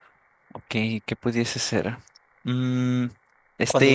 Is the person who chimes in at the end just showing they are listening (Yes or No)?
No